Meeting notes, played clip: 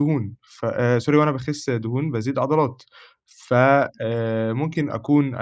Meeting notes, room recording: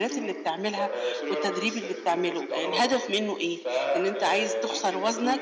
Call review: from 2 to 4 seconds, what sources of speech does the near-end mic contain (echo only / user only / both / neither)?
both